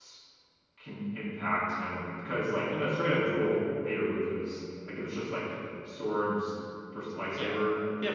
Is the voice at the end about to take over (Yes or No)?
Yes